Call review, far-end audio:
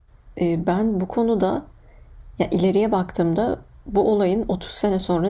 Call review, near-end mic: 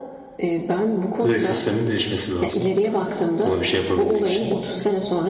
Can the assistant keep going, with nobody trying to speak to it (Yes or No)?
No